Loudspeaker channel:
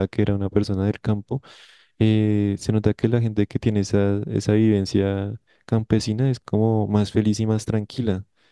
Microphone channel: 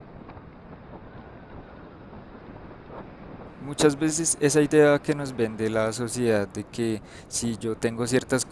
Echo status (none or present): none